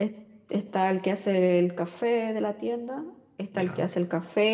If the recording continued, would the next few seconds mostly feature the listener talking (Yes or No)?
No